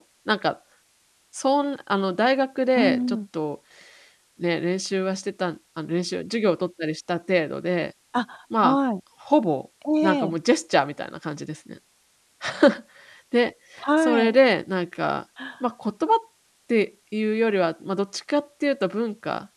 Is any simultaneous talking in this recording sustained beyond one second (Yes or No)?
No